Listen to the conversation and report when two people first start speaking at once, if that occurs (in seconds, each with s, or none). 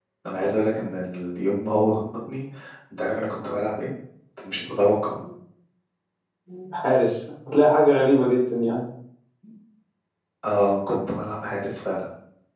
none